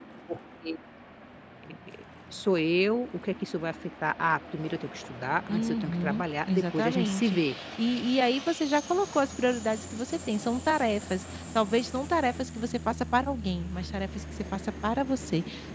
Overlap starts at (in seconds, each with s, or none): 5.5 s